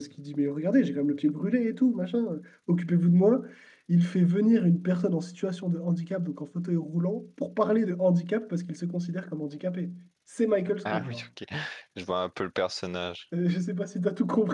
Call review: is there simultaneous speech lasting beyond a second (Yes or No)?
No